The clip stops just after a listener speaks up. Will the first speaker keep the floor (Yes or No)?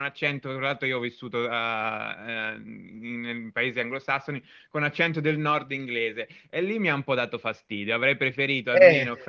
Yes